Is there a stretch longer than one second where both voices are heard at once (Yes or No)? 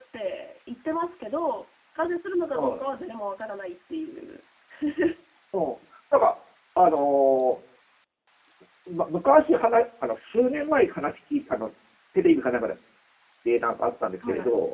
No